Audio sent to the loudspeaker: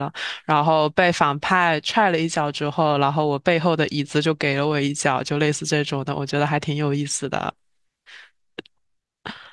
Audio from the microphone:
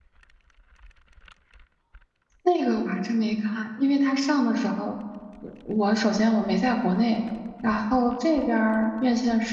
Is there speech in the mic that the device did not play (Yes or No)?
Yes